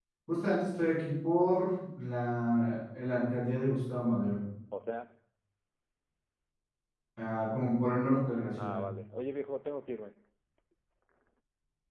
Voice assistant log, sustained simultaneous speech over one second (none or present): none